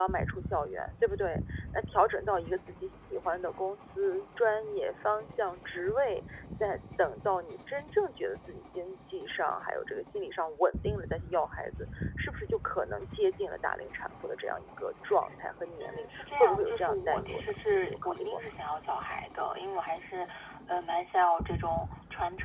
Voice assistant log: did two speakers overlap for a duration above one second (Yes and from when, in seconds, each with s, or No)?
Yes, from 15.8 s